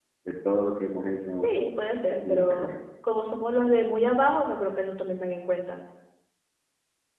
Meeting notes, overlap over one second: none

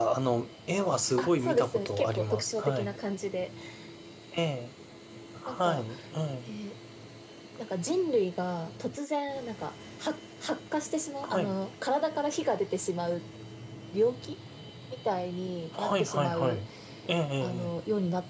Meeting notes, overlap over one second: present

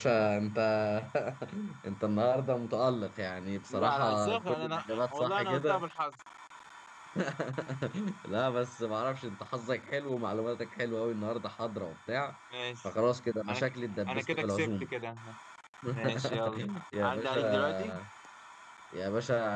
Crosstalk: present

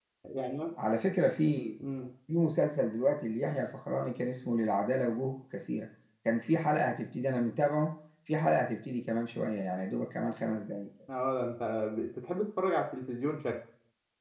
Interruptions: none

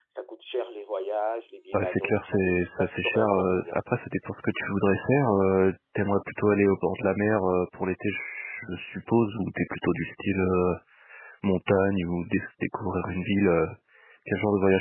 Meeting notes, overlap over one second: present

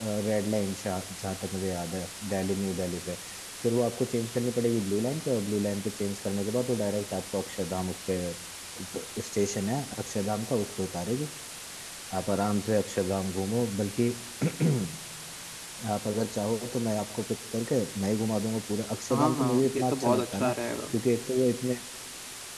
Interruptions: present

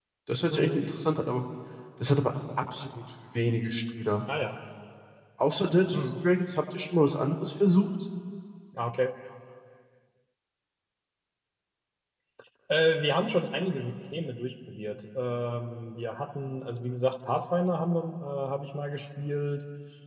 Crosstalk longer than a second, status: none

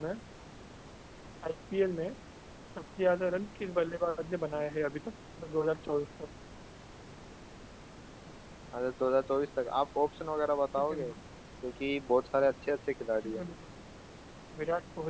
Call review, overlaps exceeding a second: none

